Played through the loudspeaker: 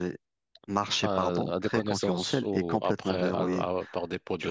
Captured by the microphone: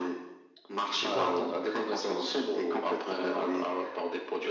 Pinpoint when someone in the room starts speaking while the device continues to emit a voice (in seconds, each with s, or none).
0.9 s